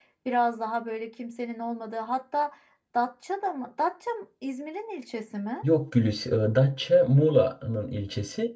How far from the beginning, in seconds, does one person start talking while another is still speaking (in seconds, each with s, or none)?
none